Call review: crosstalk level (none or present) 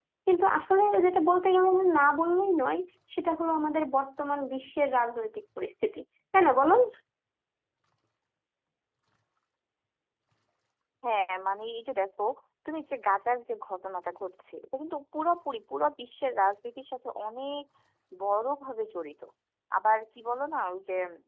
none